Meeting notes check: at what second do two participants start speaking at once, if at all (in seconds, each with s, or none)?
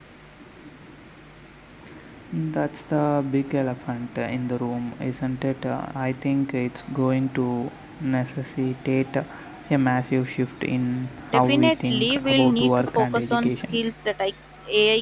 11.3 s